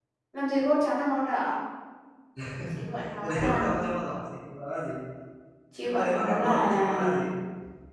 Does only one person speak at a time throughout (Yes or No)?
No